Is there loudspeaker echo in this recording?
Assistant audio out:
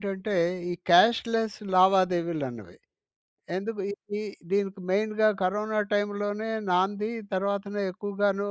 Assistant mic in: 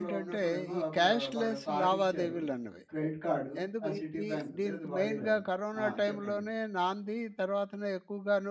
Yes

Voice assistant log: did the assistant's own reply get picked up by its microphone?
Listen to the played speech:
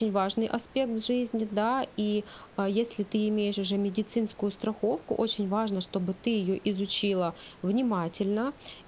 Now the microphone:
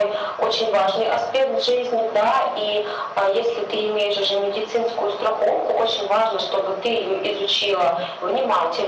Yes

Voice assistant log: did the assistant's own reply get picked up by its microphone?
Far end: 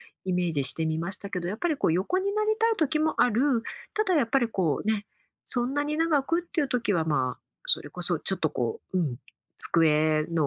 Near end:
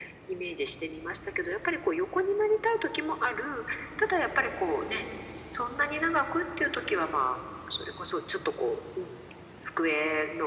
Yes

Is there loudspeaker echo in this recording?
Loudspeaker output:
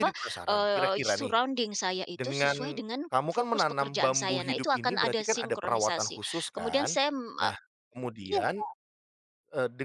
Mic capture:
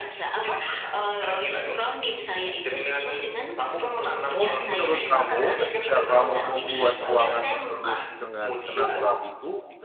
Yes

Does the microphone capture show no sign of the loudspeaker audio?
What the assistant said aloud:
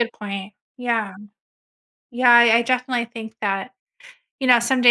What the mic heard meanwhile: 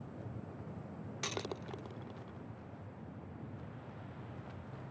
Yes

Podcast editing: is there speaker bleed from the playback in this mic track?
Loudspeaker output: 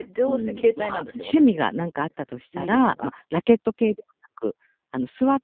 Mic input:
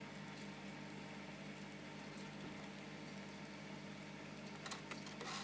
No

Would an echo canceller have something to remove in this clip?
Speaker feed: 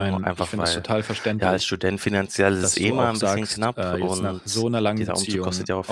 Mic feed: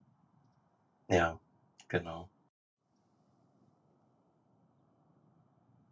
No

